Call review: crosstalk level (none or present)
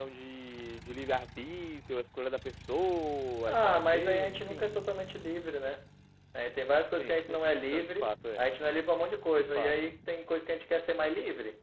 present